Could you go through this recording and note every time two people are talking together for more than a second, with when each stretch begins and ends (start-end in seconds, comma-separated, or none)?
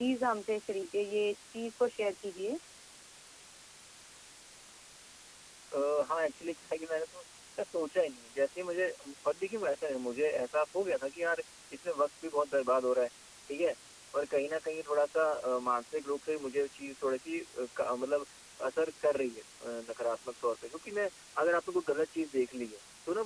none